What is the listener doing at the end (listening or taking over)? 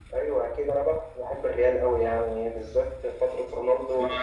taking over